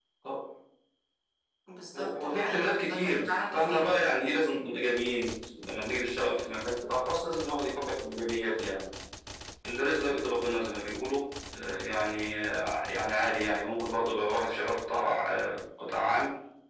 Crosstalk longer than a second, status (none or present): present